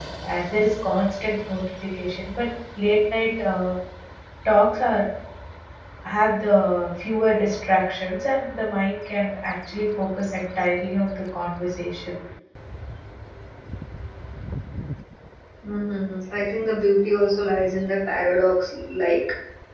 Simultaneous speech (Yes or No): No